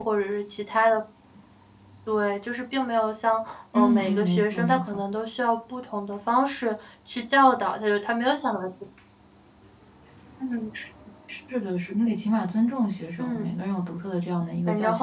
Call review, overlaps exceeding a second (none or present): present